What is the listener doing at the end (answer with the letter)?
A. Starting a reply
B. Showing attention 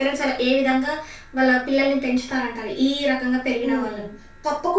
A